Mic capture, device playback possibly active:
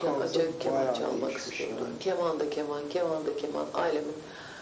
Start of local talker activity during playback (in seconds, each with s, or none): none